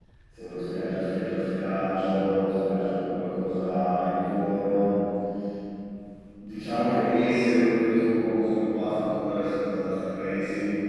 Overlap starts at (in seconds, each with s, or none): none